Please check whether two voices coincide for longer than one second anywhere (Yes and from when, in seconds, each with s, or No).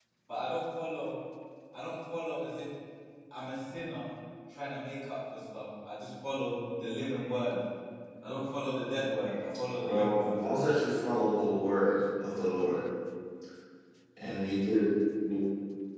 No